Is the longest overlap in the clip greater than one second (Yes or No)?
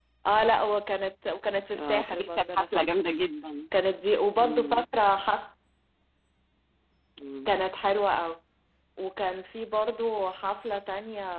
Yes